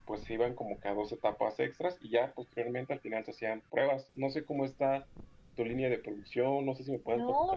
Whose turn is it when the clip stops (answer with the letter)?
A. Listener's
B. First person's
A